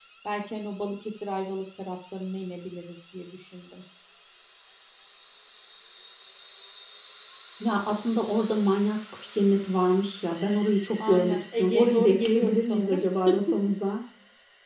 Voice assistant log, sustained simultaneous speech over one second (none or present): present